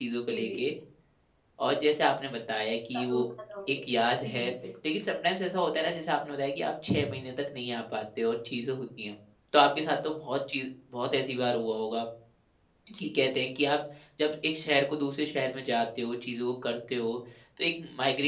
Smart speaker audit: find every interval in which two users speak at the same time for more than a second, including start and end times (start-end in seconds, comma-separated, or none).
none